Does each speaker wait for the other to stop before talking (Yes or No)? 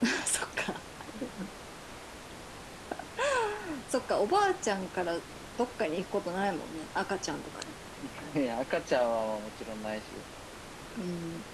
Yes